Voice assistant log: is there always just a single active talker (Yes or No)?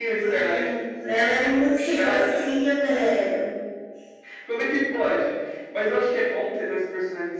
No